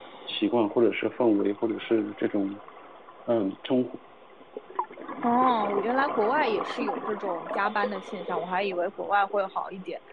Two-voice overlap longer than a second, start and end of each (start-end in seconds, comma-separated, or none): none